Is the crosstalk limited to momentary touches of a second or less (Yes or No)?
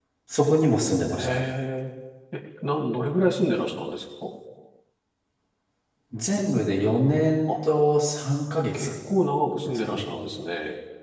Yes